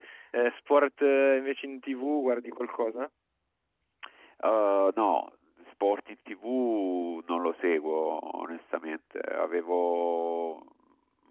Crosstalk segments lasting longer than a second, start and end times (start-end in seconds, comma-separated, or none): none